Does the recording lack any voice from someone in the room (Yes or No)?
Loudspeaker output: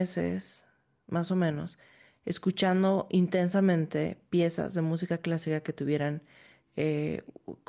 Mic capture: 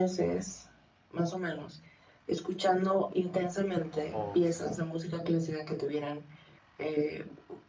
No